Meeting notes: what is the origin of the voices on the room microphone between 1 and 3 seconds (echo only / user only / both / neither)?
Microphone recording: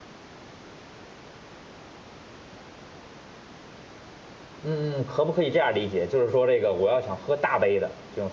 neither